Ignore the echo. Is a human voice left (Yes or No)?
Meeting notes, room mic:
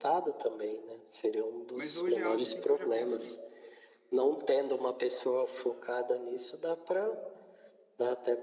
Yes